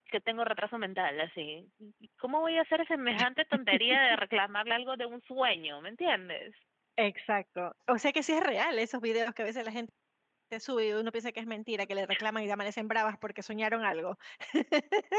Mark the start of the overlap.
none

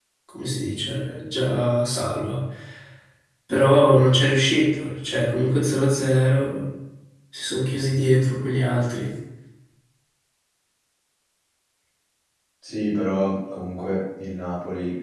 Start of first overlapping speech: none

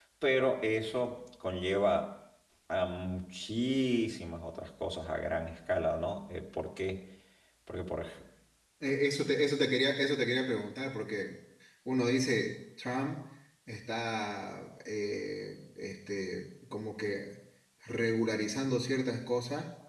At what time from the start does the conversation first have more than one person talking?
none

